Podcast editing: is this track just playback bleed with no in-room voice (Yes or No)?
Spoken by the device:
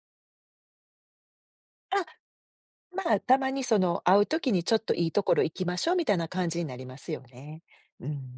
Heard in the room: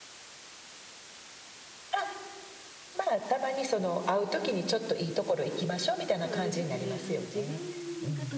No